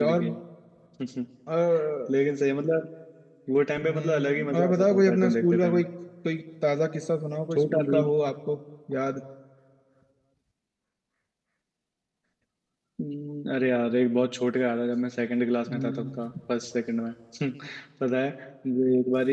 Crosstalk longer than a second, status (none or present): present